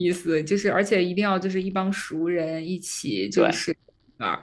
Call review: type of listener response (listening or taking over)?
listening